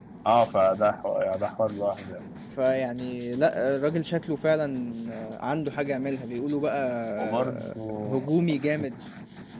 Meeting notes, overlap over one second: none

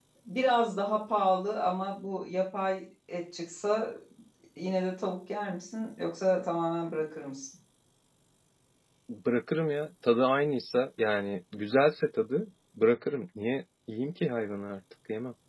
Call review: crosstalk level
none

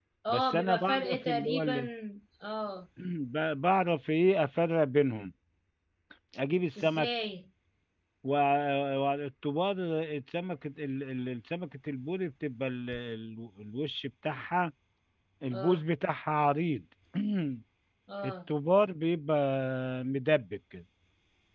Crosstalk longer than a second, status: present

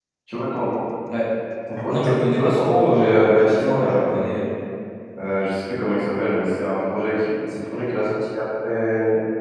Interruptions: present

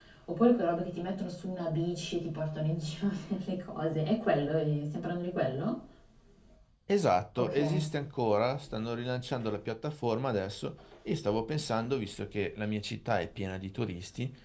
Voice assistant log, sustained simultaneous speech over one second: none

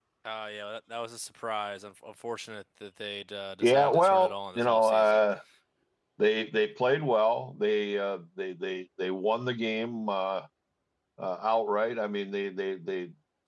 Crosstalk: present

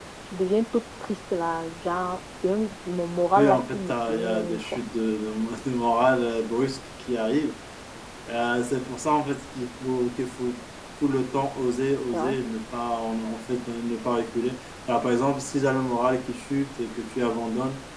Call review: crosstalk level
present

